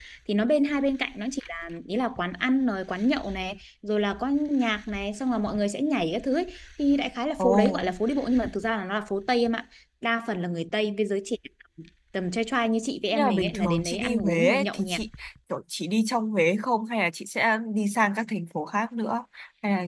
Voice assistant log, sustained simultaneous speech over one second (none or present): present